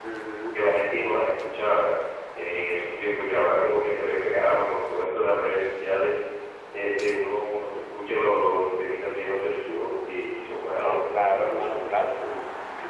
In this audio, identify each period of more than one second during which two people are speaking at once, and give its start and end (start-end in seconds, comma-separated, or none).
10.8-12.1